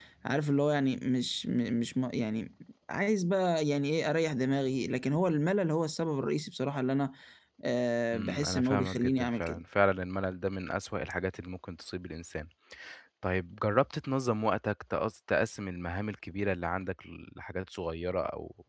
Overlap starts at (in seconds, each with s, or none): 8.1 s